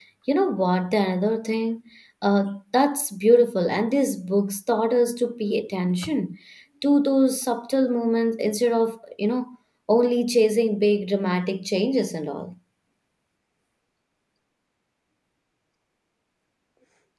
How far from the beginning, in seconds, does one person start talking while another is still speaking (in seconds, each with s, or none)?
none